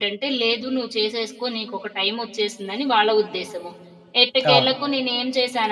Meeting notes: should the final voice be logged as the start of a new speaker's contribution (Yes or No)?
No